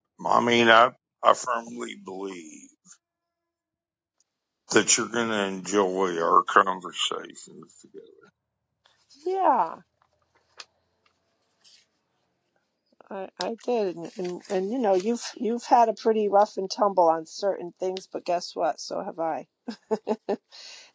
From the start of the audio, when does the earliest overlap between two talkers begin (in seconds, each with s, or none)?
none